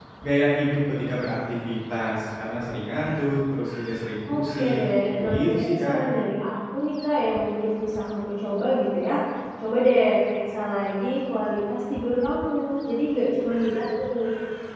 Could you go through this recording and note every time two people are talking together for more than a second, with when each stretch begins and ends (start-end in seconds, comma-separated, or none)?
4.3-6.0